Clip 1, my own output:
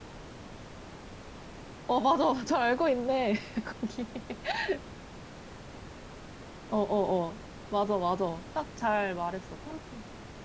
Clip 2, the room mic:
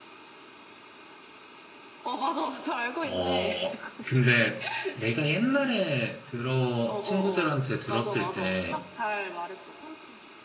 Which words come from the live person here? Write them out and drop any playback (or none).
어, 근데 내가 옛날에 들어, 친구들한테 들었을 때,